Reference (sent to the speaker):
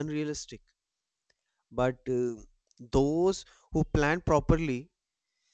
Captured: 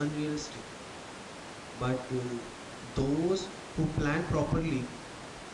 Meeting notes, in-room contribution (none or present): none